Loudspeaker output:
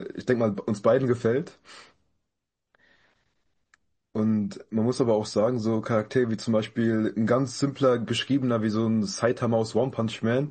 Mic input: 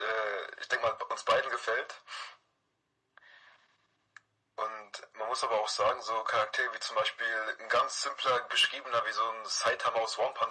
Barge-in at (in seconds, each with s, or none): none